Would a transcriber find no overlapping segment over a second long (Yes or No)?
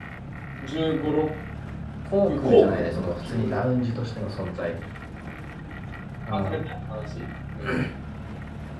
No